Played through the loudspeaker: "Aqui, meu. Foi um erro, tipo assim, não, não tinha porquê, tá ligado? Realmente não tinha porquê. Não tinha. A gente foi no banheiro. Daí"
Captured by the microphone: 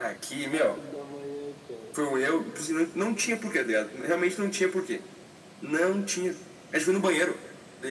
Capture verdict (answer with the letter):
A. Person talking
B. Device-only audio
A